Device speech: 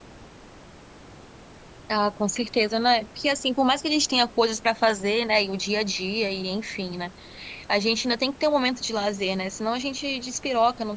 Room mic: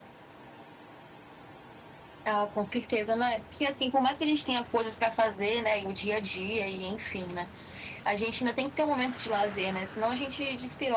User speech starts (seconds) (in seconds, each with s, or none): none